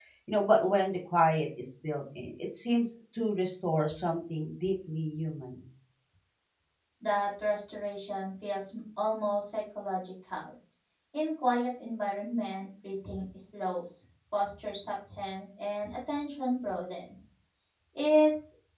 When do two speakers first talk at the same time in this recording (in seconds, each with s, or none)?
none